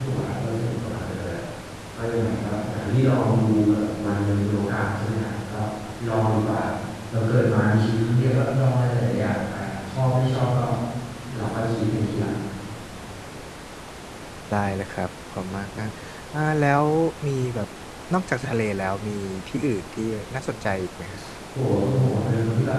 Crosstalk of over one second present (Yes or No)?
No